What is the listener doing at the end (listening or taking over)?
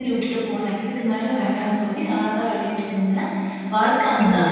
listening